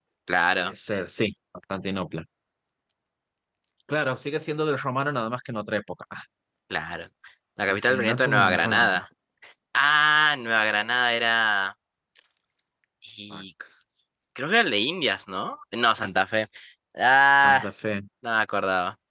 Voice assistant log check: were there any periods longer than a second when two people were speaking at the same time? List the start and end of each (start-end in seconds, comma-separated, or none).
7.7-9.0